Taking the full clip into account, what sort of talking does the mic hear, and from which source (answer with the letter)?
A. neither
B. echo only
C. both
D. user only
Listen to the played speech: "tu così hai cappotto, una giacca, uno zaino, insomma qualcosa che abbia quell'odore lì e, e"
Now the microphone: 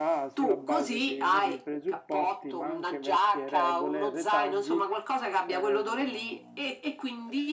C